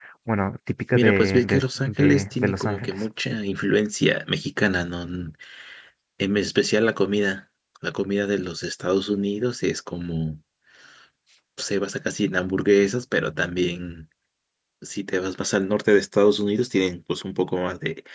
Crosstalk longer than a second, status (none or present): present